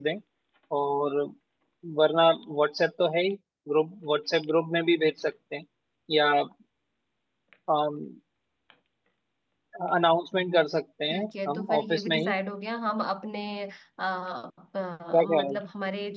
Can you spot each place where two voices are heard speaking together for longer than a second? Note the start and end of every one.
11.1-12.3

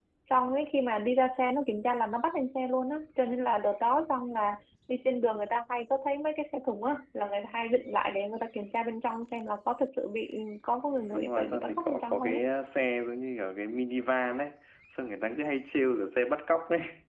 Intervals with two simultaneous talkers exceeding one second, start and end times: 11.1-12.4

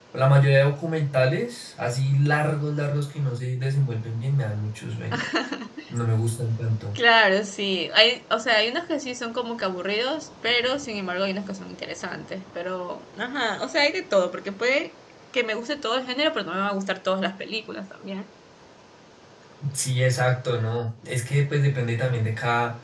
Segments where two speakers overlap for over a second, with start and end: none

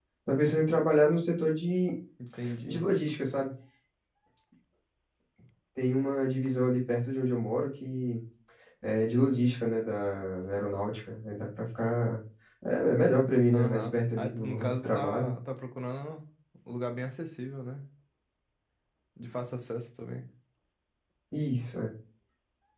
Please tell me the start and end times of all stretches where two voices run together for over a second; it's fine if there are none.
13.5-15.3

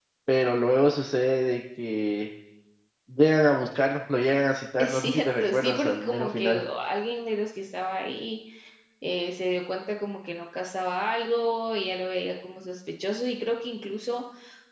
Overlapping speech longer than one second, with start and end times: 4.8-6.6

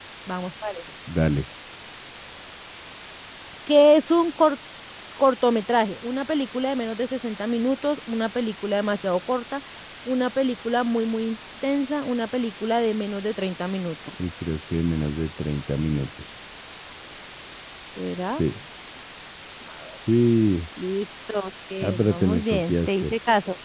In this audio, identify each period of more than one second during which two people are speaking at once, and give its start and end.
21.8-23.1

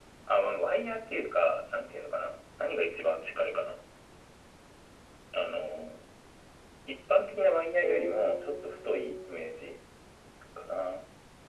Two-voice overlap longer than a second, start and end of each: 7.8-9.6

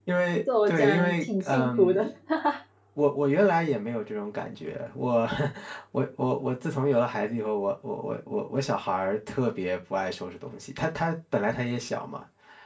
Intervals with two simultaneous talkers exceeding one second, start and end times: 0.7-2.0

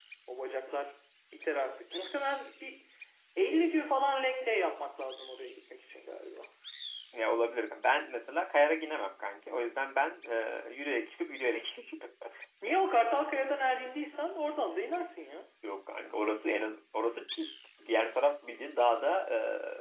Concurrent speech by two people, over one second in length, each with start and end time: none

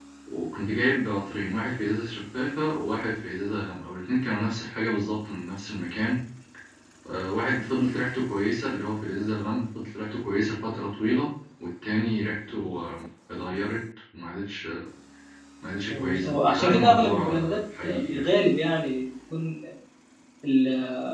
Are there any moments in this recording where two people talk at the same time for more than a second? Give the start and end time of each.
15.9-18.3

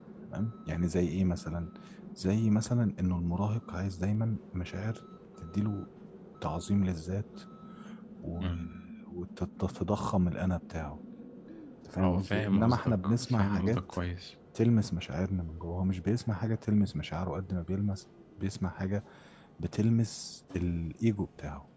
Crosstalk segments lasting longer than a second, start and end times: 12.0-13.8

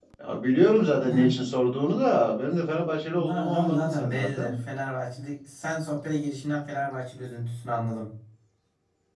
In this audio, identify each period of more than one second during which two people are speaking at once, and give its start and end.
3.2-4.5

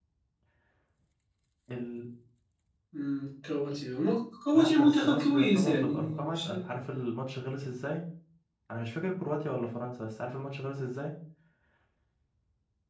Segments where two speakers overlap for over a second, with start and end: 4.5-6.5

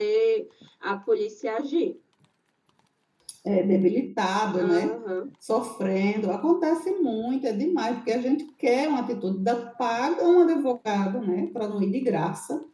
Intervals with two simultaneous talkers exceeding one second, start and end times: none

